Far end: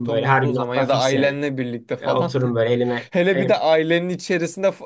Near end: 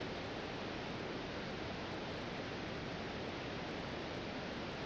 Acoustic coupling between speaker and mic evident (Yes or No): No